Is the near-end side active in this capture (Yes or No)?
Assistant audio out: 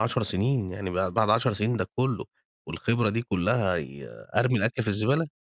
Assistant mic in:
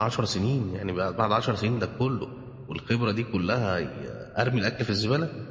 No